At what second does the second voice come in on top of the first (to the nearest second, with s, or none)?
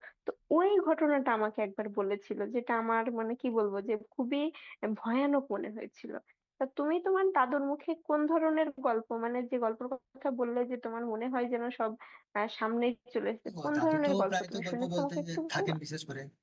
13 s